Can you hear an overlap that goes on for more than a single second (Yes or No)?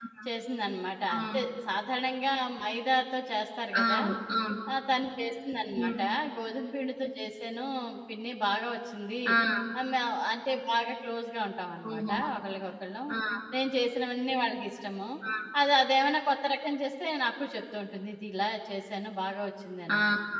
No